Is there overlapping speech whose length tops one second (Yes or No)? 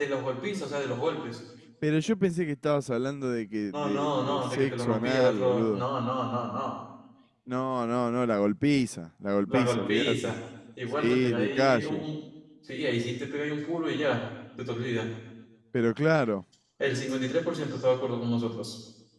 Yes